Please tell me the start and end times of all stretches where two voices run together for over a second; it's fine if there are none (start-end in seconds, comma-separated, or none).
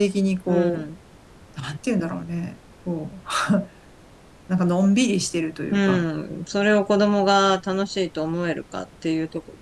none